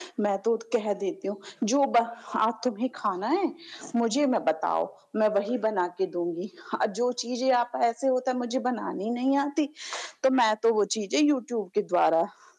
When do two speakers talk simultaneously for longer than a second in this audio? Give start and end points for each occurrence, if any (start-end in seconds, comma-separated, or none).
none